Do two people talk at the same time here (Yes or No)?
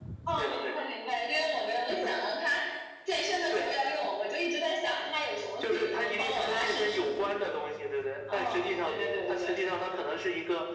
Yes